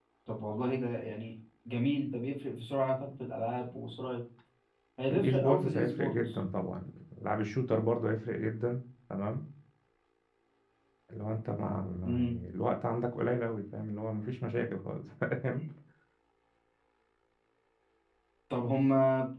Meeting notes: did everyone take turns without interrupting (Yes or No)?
No